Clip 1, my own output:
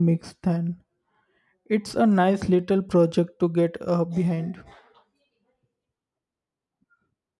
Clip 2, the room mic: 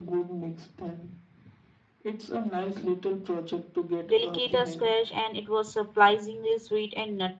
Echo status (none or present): present